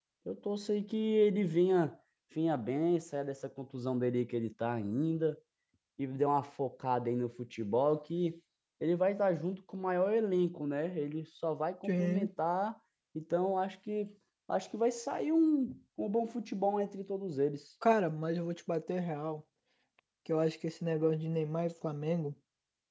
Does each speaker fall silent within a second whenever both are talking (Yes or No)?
Yes